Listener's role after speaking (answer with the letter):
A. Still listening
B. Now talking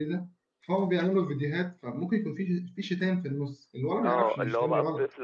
B